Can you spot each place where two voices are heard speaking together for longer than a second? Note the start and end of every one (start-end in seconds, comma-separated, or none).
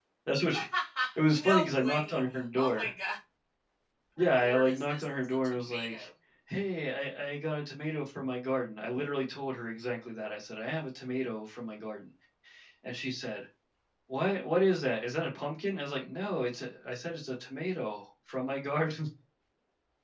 1.3-2.9, 4.2-6.1